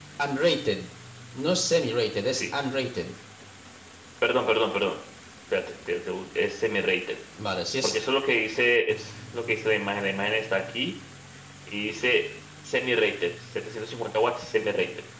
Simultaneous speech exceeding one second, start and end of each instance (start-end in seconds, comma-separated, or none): none